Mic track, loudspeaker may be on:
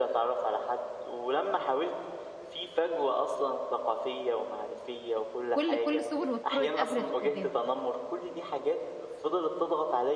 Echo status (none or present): present